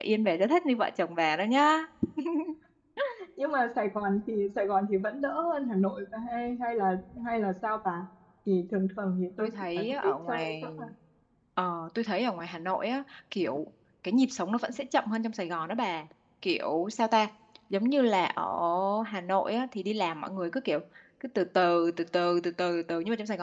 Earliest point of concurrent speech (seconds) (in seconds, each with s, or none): 9.4 s